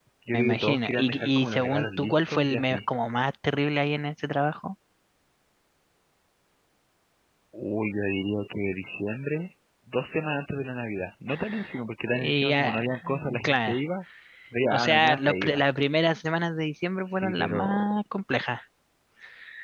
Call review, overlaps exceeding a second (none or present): present